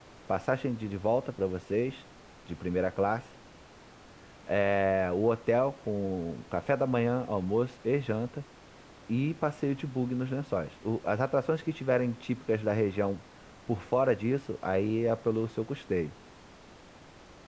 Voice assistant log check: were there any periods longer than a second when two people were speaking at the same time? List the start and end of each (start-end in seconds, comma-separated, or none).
none